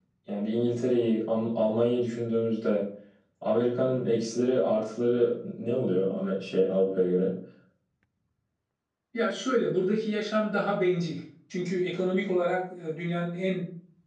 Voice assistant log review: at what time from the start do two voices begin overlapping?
none

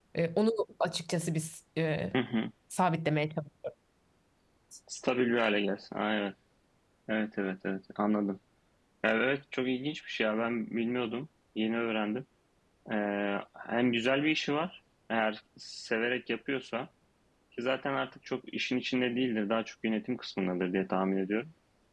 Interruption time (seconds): none

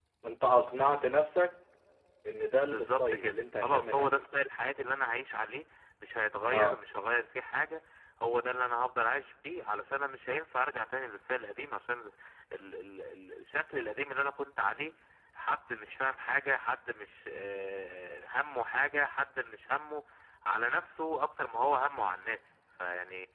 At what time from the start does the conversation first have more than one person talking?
2.7 s

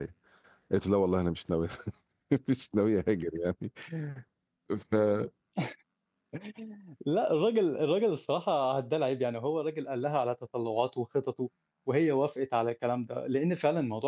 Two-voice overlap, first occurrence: none

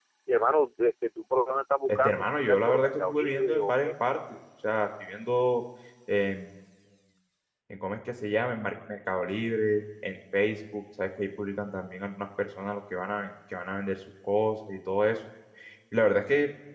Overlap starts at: 1.9 s

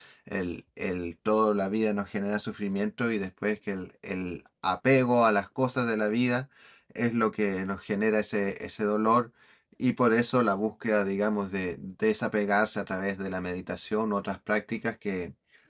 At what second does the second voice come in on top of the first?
none

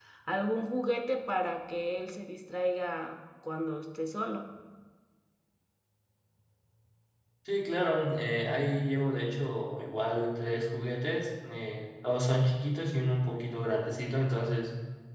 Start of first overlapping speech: none

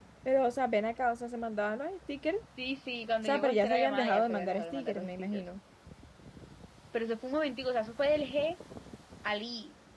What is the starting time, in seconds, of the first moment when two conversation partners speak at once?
3.2 s

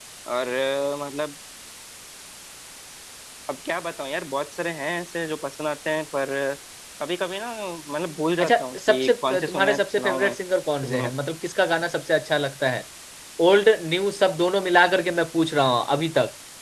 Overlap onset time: 8.4 s

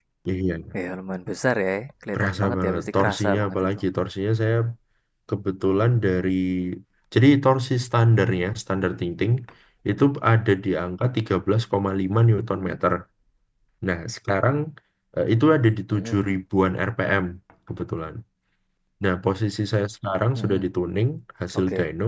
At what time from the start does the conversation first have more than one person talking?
2.1 s

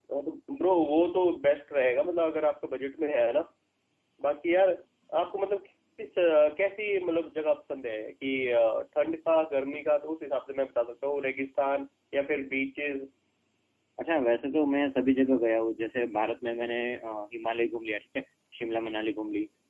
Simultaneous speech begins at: none

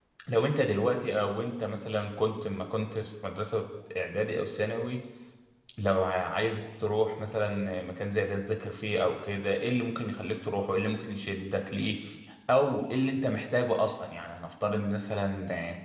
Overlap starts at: none

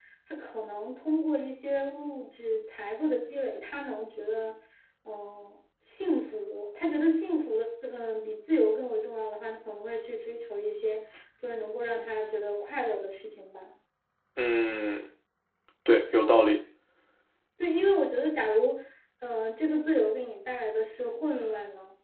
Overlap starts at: none

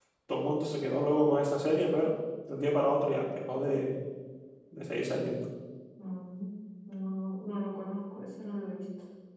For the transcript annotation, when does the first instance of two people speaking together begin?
none

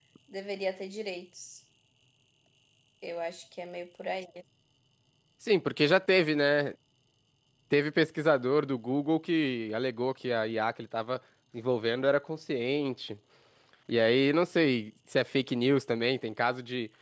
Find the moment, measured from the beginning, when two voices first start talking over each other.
none

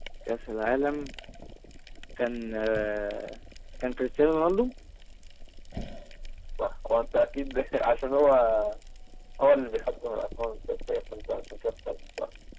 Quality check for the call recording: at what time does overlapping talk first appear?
none

